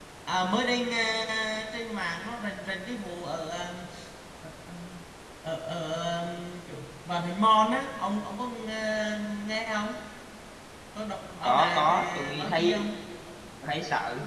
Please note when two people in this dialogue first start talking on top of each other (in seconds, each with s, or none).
11.4 s